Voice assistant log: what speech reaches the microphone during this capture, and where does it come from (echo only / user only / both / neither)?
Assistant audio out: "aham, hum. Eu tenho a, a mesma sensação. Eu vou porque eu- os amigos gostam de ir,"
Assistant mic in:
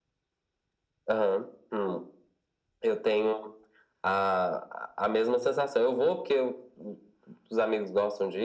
echo only